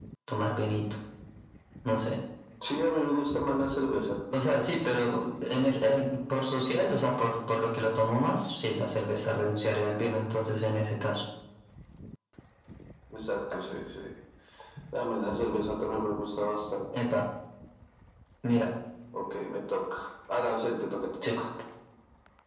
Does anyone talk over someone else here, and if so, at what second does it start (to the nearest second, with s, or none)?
none